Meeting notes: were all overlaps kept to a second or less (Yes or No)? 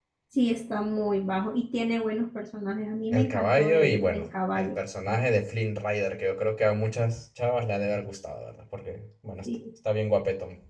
No